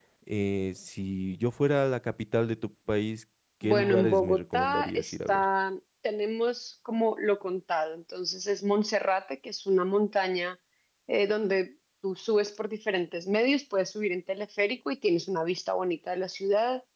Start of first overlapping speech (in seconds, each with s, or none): 3.6 s